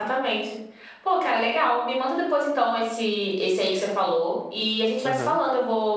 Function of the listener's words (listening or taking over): listening